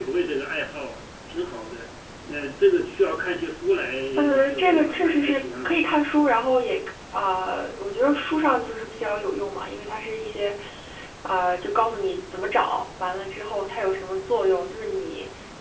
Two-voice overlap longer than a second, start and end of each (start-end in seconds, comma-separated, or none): 4.4-5.8